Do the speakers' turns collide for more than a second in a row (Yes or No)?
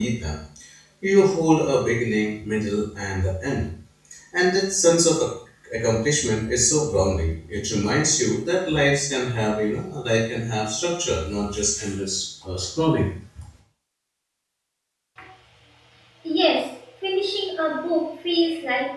No